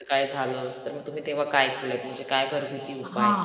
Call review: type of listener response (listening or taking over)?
taking over